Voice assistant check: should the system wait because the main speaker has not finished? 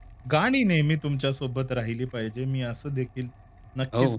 Yes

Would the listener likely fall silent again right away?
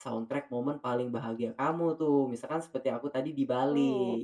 No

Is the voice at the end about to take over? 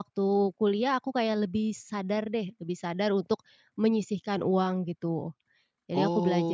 Yes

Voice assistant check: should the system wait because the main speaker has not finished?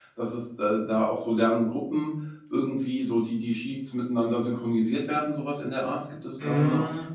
No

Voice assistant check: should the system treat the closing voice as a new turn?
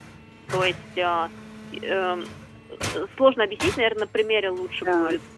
Yes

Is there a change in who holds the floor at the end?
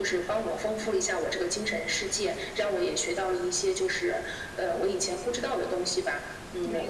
No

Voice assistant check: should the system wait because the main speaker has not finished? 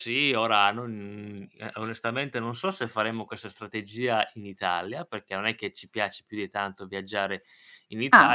Yes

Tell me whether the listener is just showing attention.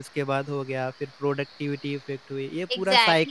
No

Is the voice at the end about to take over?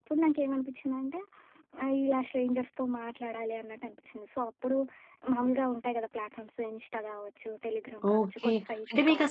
Yes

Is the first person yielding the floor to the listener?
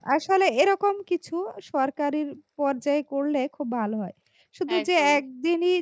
No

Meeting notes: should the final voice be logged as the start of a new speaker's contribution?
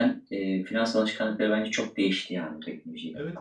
Yes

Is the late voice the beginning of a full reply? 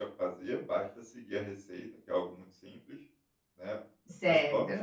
No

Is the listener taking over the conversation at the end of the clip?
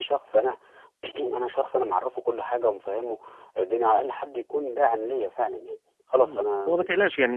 Yes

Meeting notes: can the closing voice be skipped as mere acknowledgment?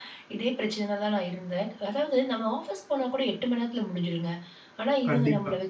Yes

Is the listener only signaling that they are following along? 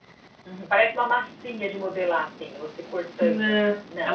No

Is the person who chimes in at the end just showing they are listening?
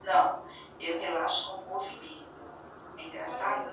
No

